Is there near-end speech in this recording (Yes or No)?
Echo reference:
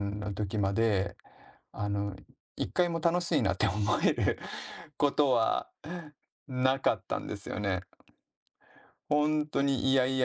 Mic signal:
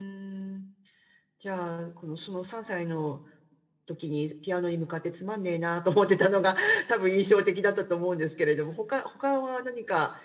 Yes